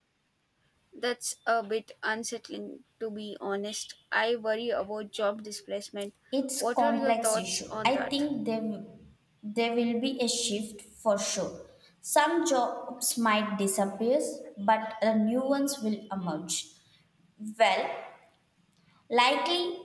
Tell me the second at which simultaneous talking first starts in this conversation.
6.6 s

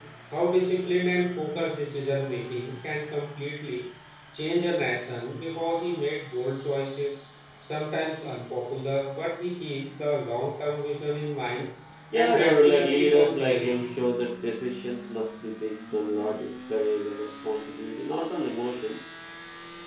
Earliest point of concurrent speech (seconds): 12.1 s

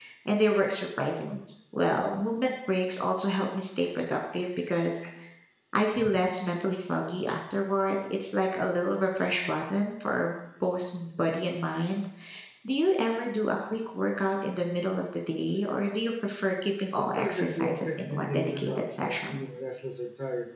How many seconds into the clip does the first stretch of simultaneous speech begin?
17.0 s

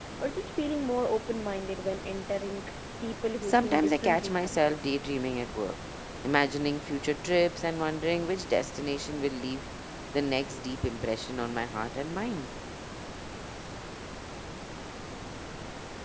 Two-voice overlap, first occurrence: 3.4 s

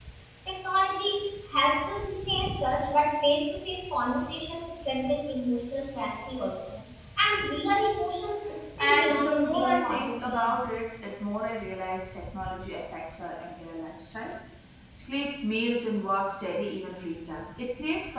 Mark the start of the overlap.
8.8 s

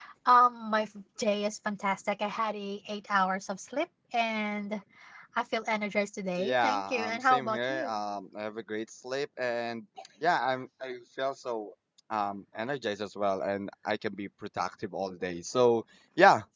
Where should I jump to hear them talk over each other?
6.4 s

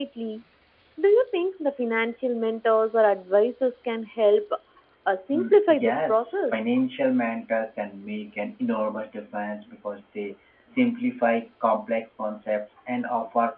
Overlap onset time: 5.3 s

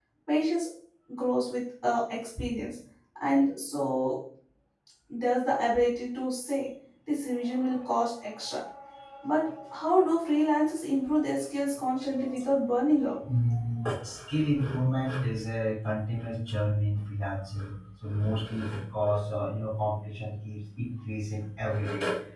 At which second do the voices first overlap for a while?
none

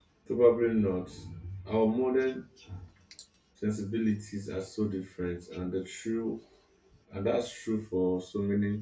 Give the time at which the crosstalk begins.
none

